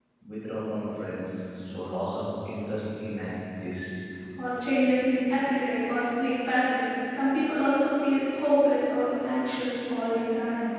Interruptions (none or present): none